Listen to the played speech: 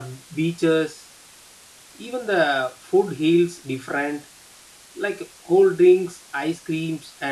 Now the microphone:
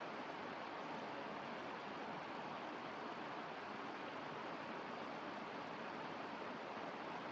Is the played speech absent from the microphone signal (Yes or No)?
Yes